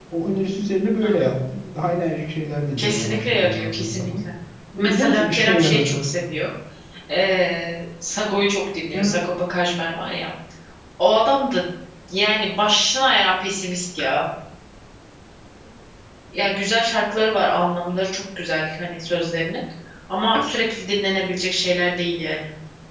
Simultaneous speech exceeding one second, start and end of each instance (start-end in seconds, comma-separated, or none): 2.8-4.1, 4.8-6.1